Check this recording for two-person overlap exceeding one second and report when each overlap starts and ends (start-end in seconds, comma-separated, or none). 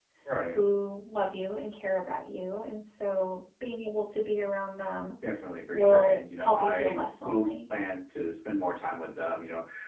5.7-7.5